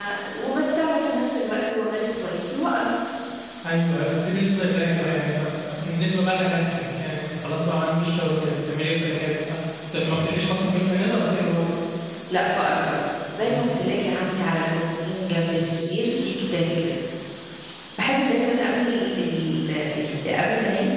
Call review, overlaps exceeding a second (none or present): none